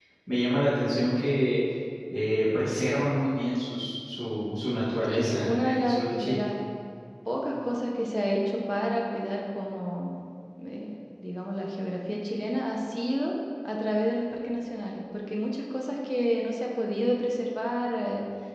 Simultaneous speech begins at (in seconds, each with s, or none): 5.0 s